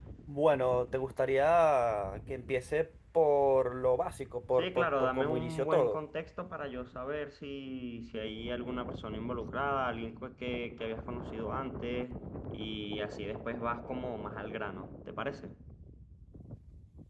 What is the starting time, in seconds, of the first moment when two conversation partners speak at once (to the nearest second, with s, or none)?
5 s